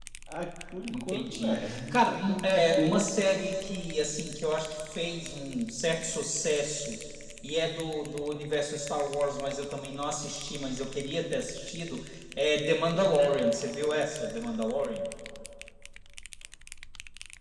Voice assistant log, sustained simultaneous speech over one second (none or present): present